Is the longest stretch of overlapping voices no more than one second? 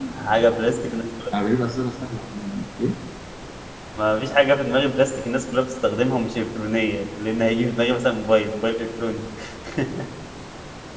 Yes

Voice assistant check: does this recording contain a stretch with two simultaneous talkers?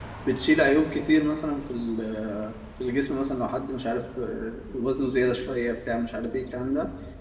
No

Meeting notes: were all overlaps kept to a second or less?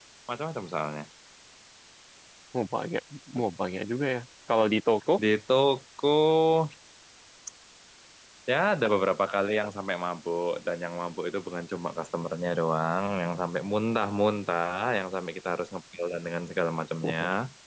Yes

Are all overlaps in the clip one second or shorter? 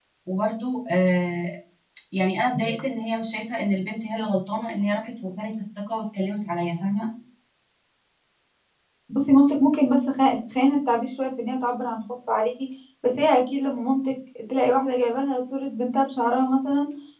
Yes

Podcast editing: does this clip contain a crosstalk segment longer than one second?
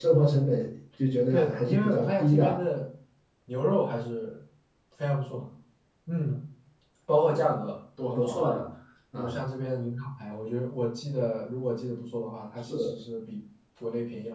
Yes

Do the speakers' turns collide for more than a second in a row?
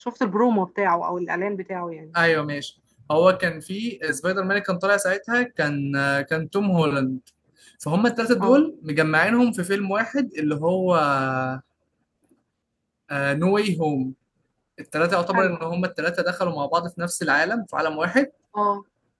No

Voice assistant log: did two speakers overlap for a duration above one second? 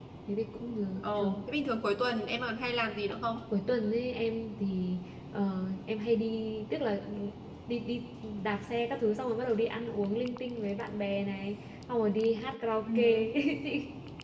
No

